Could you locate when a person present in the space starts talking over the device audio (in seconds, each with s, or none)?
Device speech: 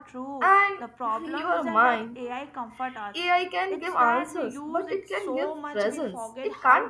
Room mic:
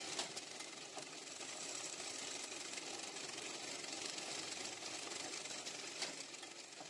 none